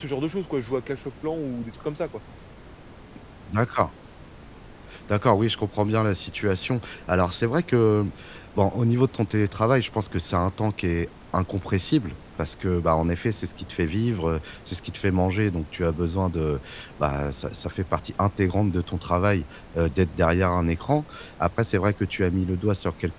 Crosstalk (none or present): none